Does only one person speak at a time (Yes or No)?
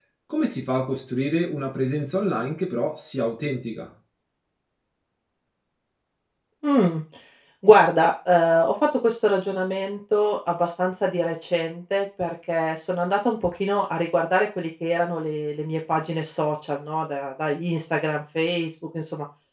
Yes